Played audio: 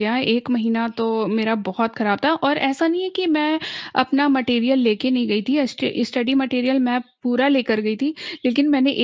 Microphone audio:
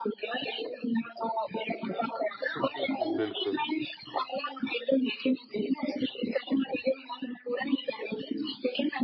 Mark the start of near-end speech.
2.6 s

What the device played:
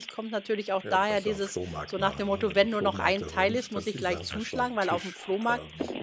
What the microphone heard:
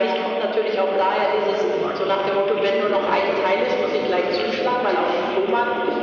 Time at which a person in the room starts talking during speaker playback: none

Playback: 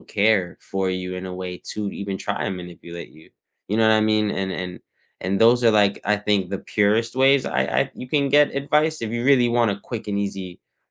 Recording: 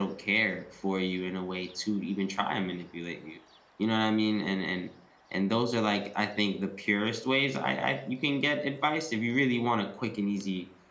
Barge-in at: none

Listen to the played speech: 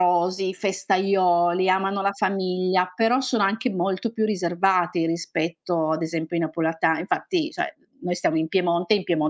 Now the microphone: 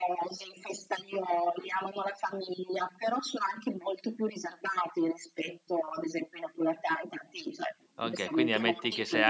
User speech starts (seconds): 8.0 s

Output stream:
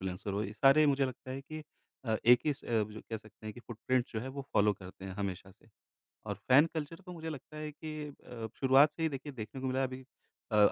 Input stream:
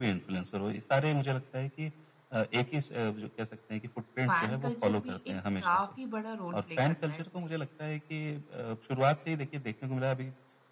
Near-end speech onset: 4.2 s

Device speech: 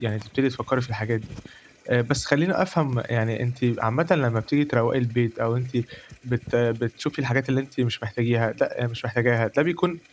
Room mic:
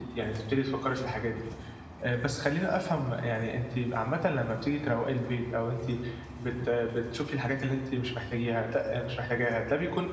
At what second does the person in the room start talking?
none

